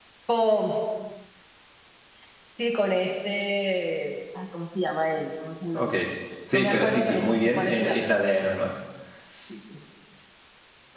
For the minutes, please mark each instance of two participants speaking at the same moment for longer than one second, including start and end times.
6.5-8.4

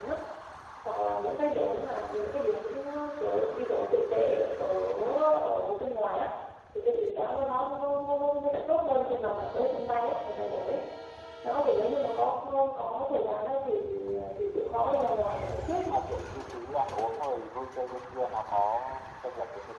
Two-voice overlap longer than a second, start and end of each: none

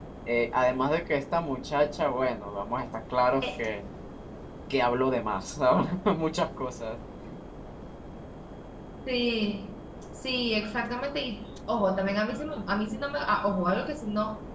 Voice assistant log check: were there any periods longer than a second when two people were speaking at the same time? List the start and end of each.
none

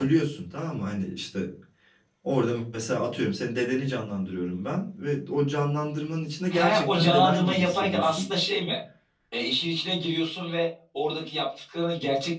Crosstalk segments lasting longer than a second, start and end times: 6.5-8.3

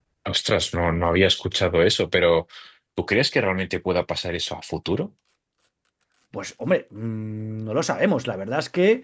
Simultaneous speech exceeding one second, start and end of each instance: none

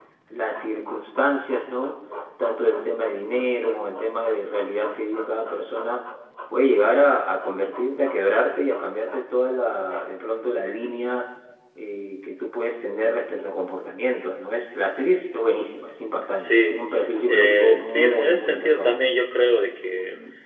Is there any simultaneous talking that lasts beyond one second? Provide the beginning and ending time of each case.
17.3-19.0

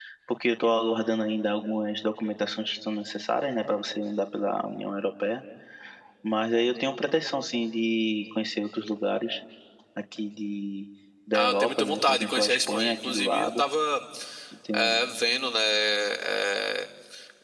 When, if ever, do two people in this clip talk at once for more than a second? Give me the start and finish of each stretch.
11.3-13.6

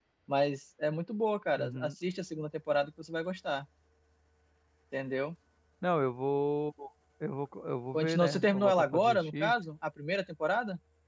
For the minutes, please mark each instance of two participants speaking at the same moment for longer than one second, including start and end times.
7.9-9.5

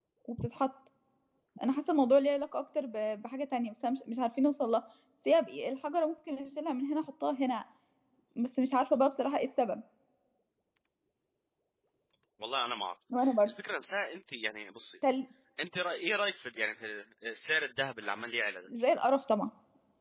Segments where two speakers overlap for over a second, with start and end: none

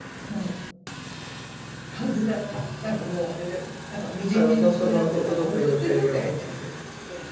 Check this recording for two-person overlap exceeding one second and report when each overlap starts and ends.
4.3-6.5

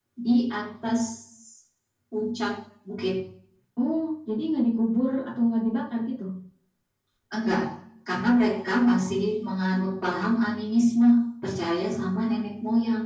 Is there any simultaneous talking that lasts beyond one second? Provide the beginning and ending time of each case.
none

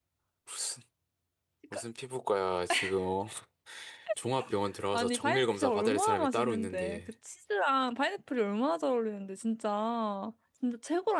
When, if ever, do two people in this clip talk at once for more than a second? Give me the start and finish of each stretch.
4.9-7.0

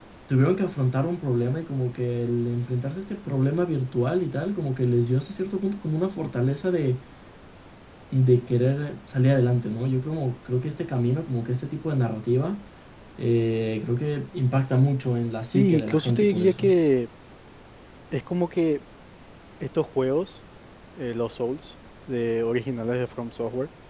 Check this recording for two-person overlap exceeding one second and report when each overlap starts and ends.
15.5-16.7

